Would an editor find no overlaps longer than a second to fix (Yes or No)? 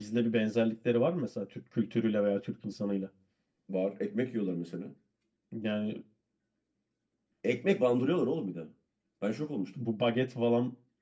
Yes